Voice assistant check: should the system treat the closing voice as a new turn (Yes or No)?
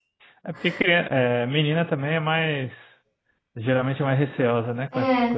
Yes